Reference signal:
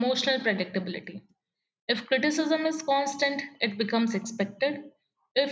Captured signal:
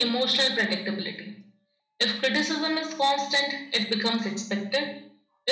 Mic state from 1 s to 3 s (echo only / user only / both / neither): echo only